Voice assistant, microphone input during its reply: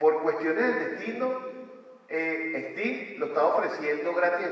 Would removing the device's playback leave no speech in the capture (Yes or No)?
No